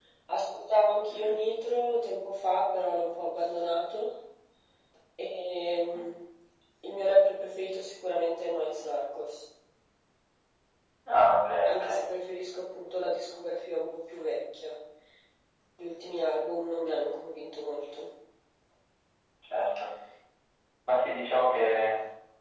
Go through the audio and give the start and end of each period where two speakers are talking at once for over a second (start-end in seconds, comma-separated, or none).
none